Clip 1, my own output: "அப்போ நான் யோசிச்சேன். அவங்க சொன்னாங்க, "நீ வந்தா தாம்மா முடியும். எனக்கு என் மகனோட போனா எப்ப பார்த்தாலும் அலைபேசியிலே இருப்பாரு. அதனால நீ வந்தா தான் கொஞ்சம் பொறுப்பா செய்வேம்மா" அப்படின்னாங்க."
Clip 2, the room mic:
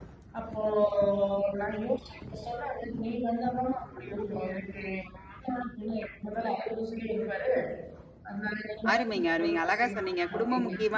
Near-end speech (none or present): present